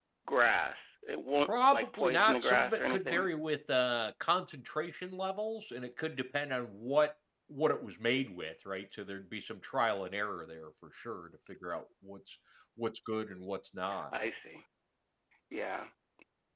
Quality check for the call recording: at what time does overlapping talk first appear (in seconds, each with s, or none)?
1.7 s